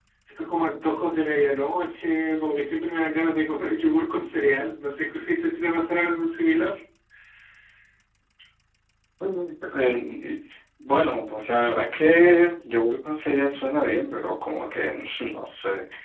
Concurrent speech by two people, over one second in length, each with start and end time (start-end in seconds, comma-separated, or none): none